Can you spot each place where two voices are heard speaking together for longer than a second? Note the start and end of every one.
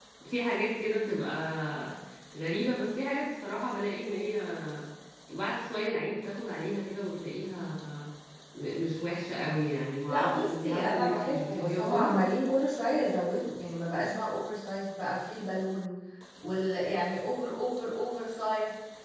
10.1-12.1

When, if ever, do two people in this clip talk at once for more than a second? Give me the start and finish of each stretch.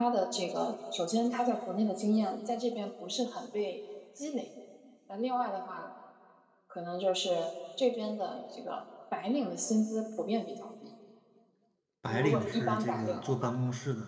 12.1-13.5

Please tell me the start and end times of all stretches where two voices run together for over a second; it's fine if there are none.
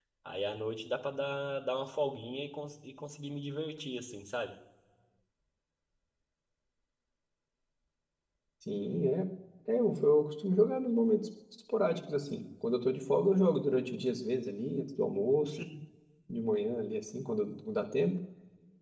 none

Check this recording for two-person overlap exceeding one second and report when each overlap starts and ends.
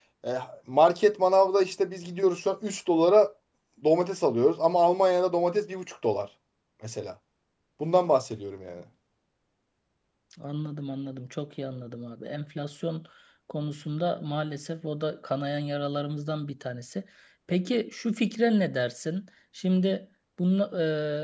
none

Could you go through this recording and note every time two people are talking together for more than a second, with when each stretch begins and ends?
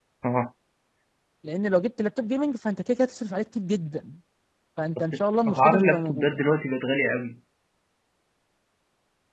5.0-6.4

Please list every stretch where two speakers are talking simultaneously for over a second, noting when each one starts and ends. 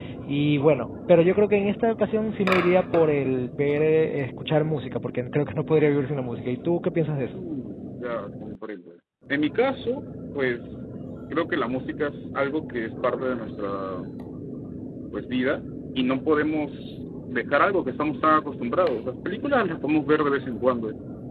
none

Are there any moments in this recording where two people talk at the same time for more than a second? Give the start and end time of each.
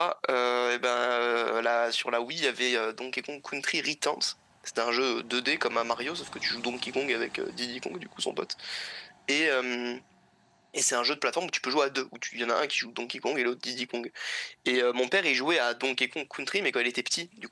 none

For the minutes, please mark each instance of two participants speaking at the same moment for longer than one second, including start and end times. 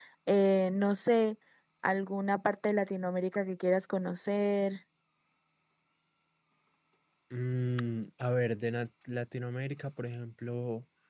none

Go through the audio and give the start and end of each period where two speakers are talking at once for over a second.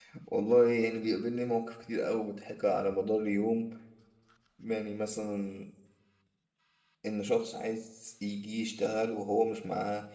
none

